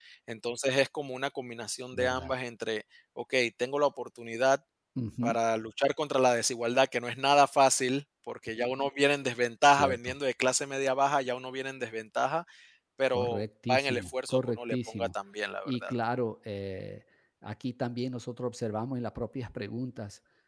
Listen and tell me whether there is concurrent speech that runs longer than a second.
Yes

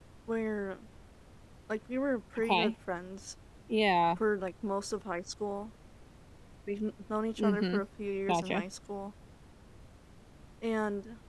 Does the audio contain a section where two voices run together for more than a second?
No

